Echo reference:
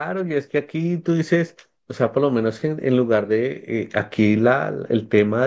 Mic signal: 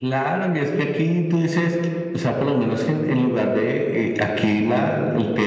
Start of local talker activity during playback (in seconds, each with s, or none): none